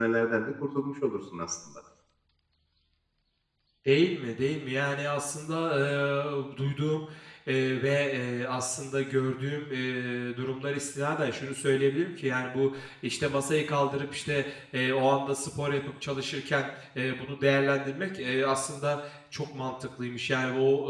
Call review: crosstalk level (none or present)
none